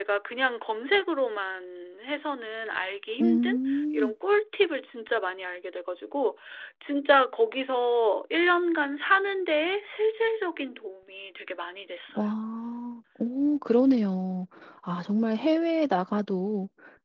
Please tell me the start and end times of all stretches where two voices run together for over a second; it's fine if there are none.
none

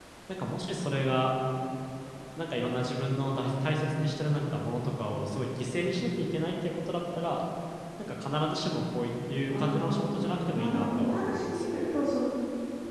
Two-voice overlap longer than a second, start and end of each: 10.6-11.8

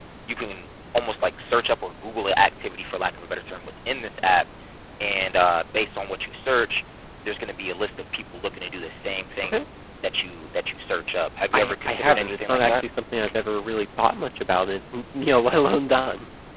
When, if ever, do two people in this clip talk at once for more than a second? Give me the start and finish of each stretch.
11.5-12.8

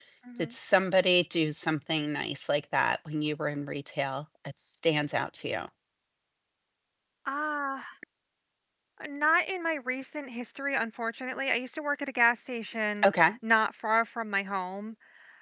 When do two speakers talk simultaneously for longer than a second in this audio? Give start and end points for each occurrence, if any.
none

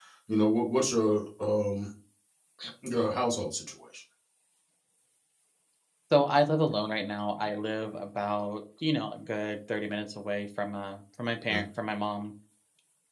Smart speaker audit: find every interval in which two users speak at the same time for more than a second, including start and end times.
none

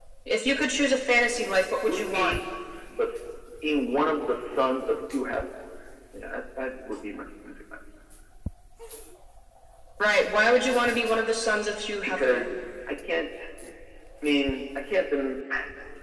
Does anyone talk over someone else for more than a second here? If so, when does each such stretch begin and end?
none

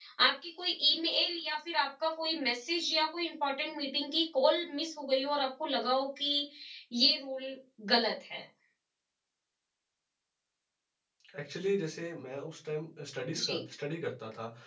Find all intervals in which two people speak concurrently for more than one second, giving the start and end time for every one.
none

